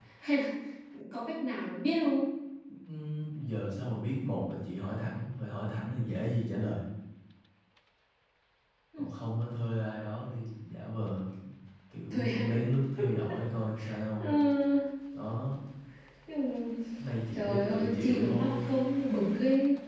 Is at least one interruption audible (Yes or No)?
Yes